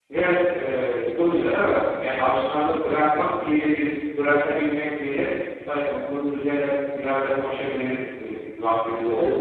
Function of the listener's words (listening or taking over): taking over